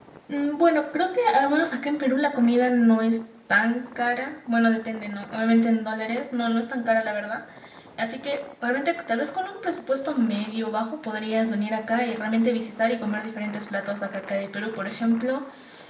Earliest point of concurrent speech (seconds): none

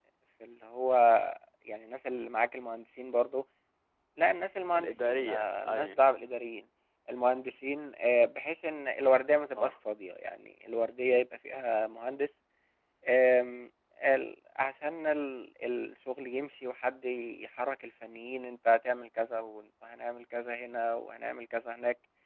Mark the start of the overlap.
5 s

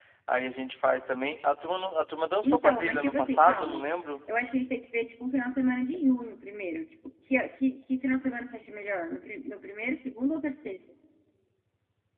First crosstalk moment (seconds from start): 2 s

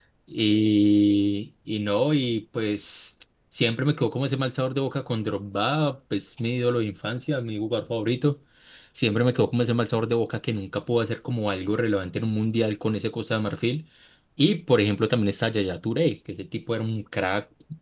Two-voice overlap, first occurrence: none

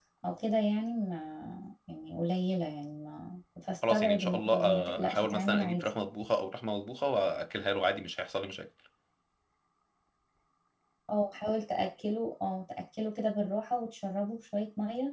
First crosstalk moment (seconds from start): 4 s

